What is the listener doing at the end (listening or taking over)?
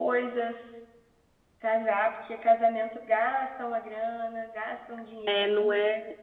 taking over